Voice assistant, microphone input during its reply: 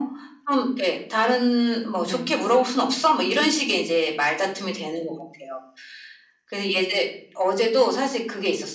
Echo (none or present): present